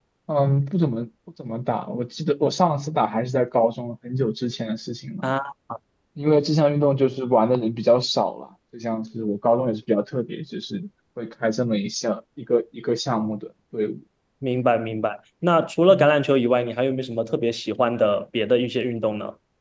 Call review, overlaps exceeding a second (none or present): none